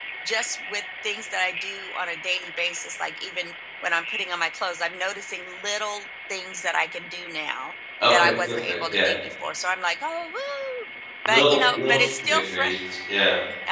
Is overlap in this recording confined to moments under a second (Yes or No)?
No